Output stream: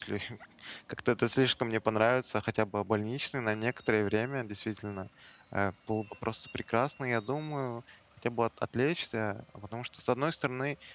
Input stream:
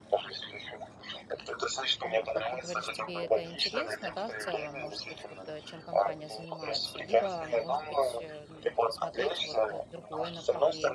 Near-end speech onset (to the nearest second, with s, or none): 2 s